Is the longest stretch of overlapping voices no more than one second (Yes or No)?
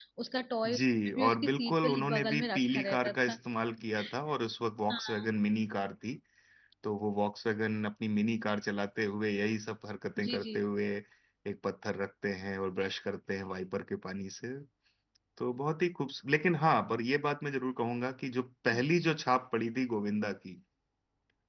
No